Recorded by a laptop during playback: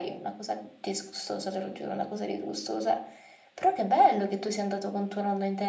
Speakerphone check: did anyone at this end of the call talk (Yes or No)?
No